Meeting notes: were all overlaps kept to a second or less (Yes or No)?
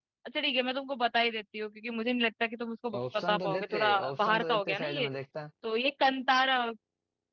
No